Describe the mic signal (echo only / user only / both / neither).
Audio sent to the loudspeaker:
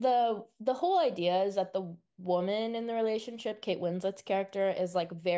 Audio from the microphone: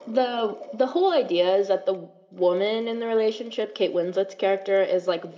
echo only